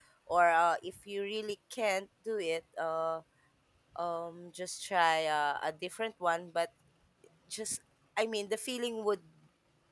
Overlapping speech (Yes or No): No